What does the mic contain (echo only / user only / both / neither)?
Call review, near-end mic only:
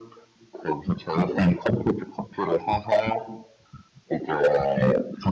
echo only